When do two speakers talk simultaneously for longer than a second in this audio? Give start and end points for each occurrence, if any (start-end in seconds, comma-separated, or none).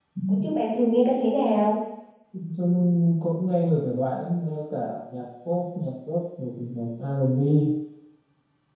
none